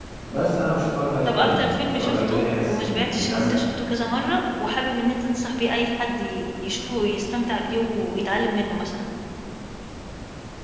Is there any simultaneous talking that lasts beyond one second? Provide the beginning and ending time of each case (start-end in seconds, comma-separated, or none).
1.2-3.6